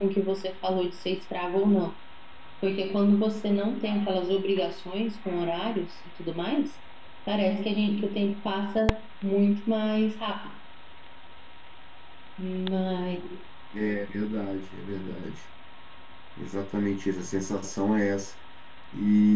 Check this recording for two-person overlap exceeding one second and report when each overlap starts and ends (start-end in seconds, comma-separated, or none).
none